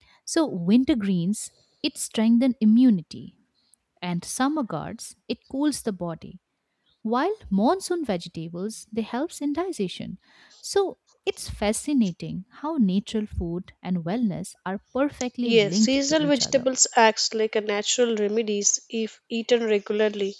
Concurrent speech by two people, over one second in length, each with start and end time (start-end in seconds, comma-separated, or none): 15.4-16.6